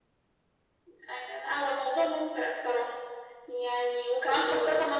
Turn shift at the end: No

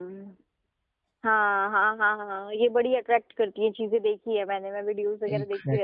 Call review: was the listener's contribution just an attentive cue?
Yes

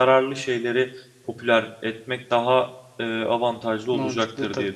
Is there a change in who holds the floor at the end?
Yes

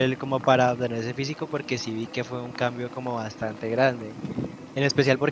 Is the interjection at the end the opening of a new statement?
No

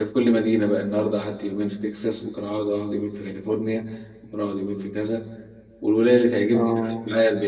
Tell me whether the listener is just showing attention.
Yes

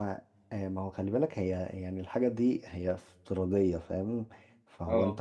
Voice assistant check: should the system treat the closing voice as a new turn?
No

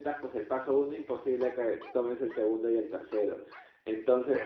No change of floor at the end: Yes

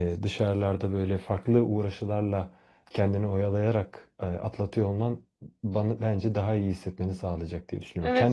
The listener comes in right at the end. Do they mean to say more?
Yes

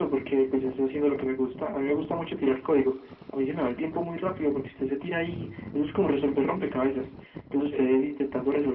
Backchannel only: Yes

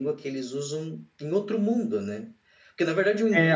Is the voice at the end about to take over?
No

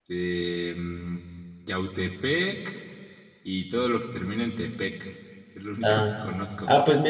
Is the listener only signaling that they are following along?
No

